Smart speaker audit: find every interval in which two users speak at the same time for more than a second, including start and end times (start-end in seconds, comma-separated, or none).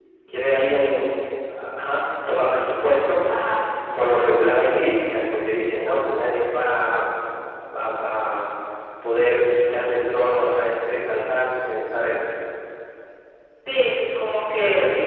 none